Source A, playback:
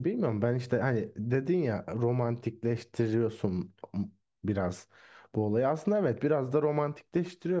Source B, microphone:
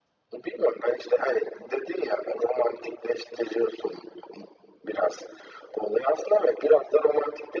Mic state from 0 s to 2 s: echo only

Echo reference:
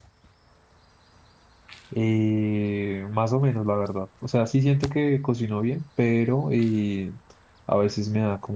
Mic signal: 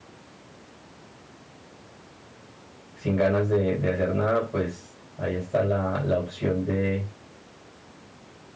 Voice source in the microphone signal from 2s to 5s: user only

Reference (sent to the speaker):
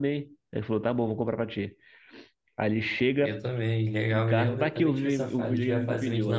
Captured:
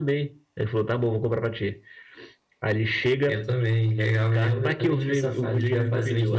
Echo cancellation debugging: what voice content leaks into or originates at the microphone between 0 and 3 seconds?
echo only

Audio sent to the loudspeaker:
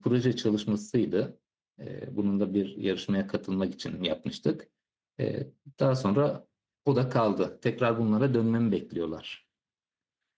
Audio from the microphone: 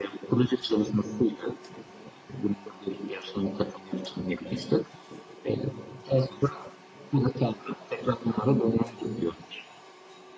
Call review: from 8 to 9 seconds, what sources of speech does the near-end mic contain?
echo only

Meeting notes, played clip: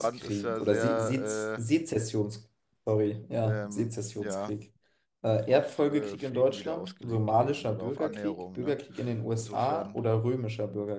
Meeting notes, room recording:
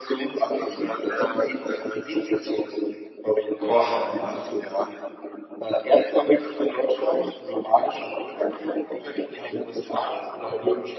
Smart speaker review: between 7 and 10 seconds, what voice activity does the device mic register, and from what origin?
echo only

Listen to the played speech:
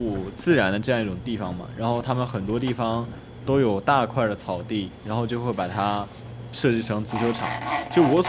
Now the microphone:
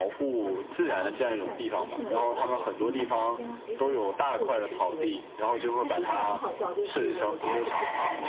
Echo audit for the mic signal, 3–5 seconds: both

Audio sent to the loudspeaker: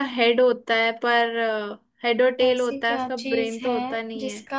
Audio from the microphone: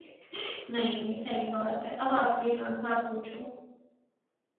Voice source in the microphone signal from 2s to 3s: user only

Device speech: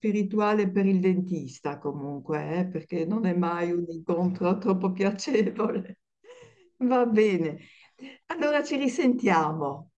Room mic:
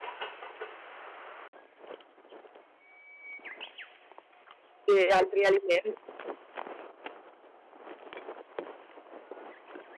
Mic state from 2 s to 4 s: neither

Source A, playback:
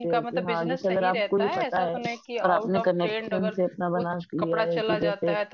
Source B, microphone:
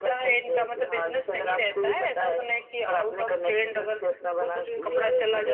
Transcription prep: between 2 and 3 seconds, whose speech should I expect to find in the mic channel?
echo only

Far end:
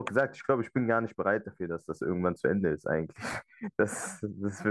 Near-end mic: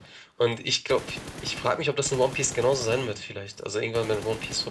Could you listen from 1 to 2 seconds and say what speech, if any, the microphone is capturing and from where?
user only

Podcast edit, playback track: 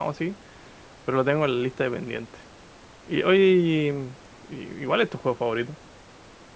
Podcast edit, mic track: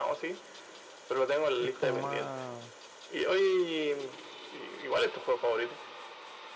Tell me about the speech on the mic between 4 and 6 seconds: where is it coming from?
echo only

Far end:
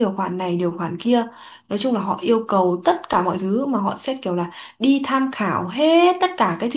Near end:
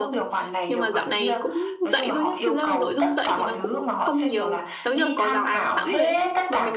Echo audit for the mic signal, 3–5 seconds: both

